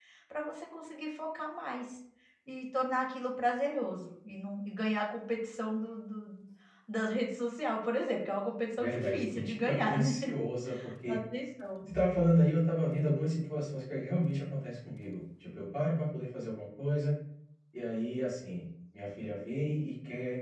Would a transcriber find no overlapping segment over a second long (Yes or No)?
No